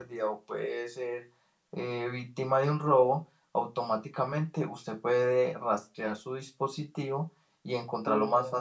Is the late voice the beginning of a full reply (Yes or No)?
Yes